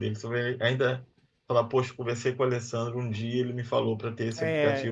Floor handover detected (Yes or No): Yes